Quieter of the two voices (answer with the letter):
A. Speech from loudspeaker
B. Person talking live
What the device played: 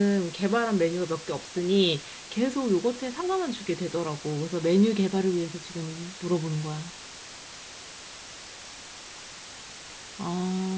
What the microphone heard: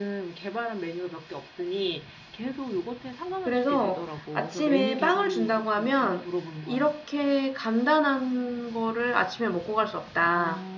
A